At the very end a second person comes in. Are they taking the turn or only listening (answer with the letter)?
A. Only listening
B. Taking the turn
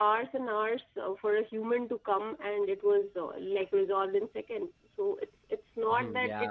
B